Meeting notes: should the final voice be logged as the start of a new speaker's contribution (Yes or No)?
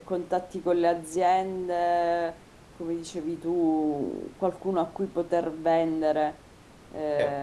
Yes